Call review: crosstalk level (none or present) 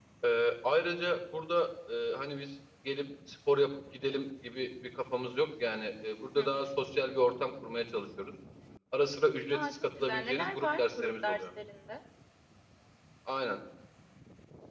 present